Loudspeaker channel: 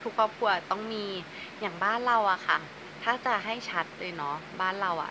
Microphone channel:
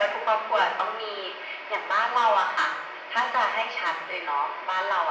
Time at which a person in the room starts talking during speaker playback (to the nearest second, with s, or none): none